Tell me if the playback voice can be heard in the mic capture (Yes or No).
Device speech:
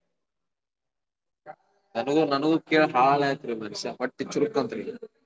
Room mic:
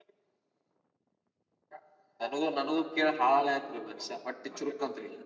Yes